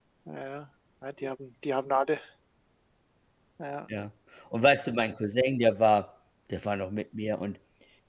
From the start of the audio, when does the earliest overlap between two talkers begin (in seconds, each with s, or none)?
none